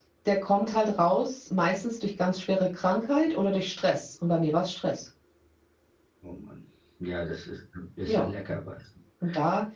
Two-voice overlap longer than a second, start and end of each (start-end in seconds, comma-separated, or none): none